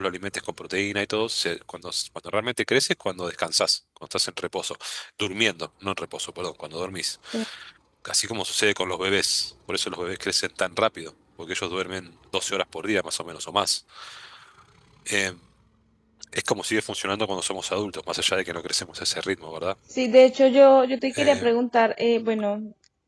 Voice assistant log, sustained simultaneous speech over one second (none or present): none